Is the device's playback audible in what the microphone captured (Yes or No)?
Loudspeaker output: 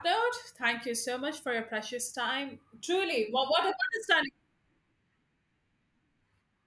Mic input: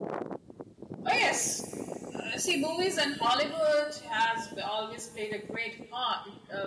No